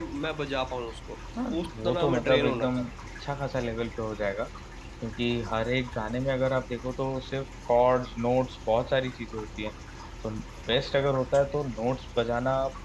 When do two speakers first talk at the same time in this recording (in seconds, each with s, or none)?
1.6 s